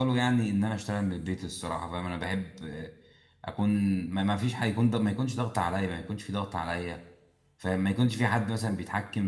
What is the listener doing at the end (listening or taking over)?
listening